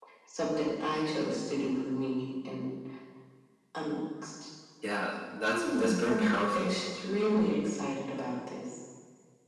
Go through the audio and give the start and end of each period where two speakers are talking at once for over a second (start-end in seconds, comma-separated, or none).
5.5-6.8